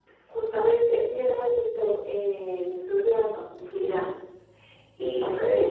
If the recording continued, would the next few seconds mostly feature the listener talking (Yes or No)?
No